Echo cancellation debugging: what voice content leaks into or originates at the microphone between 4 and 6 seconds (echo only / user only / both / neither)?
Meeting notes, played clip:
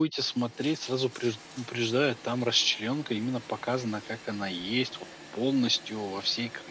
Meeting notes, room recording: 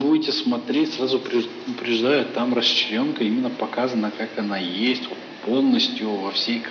echo only